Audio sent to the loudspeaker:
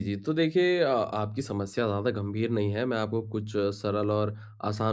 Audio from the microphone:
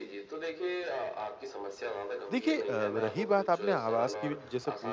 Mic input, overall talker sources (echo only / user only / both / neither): both